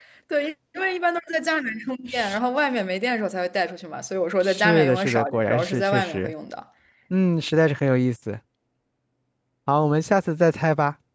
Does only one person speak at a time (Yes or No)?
No